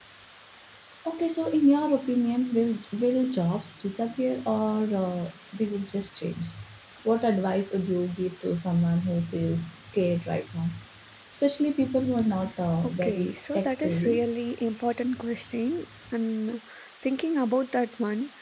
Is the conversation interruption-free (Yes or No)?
No